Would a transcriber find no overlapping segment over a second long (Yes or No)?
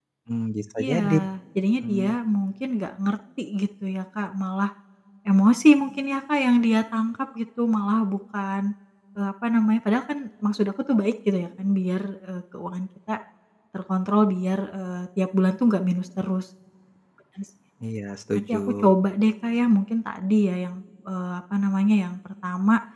Yes